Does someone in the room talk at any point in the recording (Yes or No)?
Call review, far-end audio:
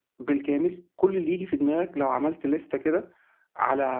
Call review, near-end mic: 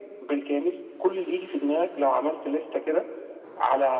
No